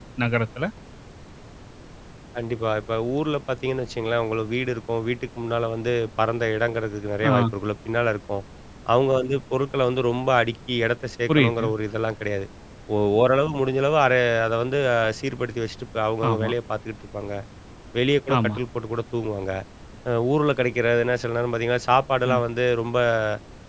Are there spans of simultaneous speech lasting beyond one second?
No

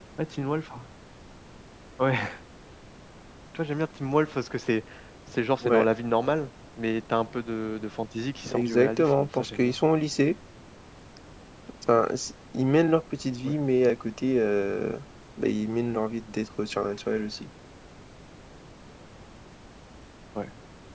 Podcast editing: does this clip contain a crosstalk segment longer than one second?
Yes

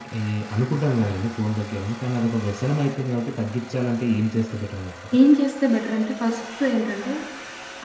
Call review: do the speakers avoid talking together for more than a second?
Yes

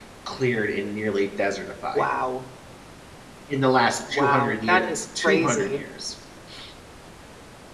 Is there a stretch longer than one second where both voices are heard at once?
Yes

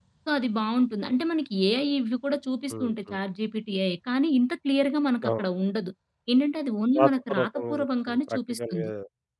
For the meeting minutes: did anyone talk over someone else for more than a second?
Yes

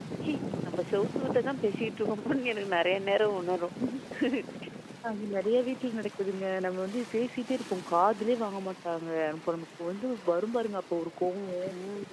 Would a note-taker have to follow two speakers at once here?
No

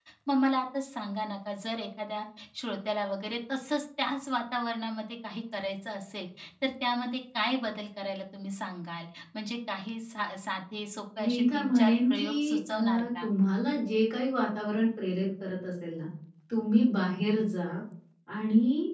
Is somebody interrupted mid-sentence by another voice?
Yes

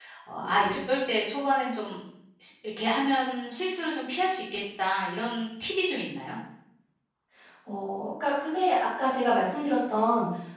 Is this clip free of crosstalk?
Yes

